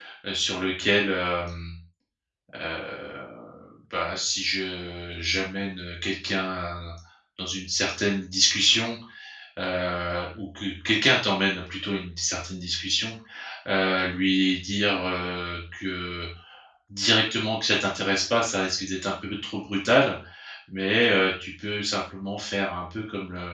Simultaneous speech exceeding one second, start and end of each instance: none

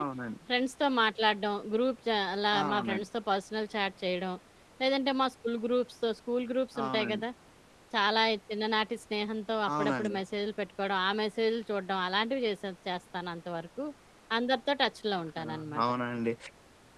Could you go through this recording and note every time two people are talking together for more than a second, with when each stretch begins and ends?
none

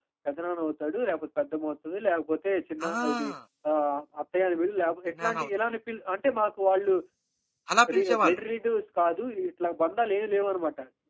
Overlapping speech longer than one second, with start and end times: none

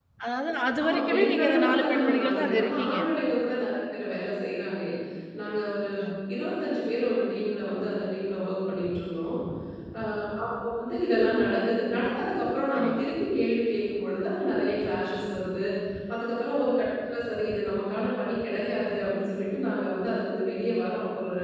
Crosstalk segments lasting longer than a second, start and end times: 0.8-3.0

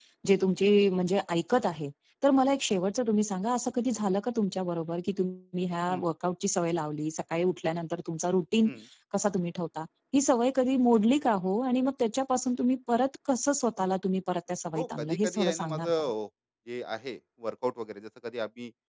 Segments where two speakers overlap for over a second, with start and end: 14.8-16.1

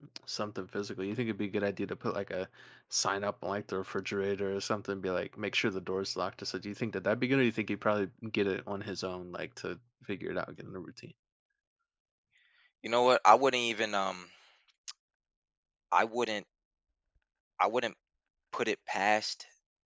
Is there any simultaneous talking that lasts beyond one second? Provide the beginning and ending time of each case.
none

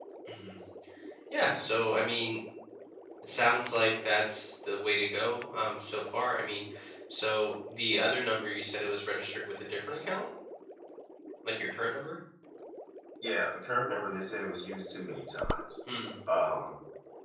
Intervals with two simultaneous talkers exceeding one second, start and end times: none

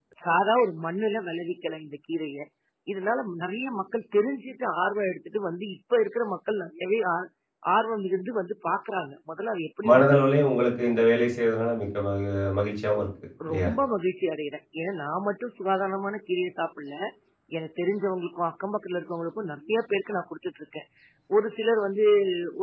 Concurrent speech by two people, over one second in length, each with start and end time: none

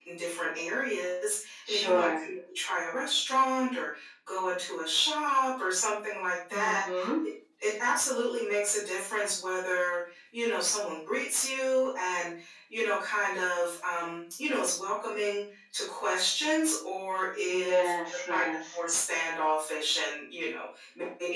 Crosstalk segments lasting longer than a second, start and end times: 17.5-18.8

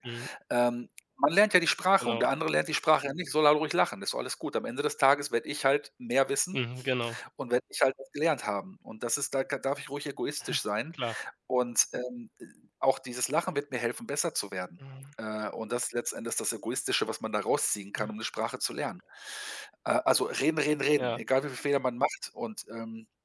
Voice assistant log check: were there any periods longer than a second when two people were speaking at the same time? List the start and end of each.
none

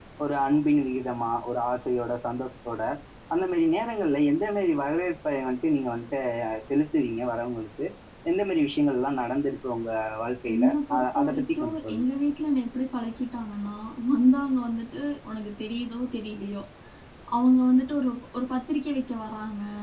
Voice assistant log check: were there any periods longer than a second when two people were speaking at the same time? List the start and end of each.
10.5-12.1

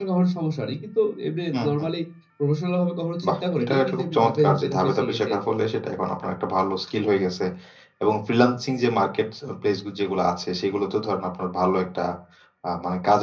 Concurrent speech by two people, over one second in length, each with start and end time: 3.3-5.4

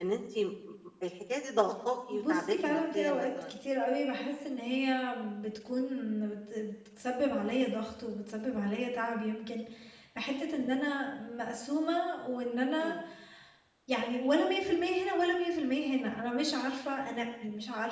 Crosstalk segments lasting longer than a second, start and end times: 2.1-3.5

